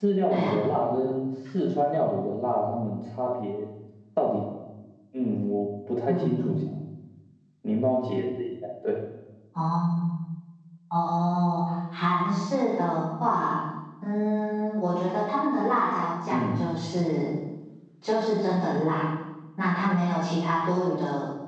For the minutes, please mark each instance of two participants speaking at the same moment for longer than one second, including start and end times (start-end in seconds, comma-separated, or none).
none